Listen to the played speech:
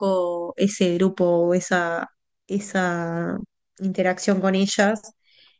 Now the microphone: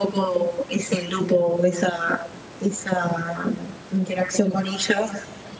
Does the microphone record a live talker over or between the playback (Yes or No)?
No